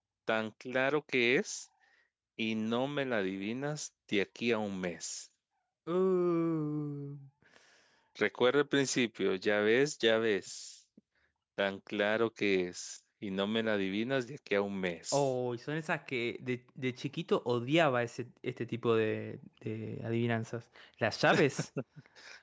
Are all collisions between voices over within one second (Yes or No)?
Yes